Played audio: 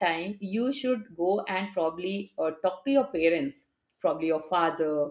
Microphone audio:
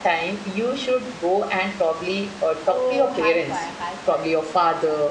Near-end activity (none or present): present